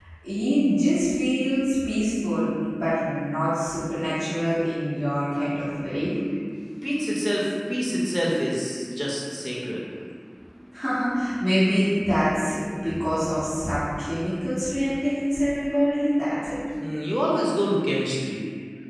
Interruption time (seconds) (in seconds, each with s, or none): none